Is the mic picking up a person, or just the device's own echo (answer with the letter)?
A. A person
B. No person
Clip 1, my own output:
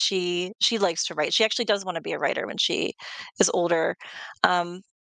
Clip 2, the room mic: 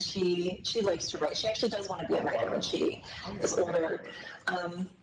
A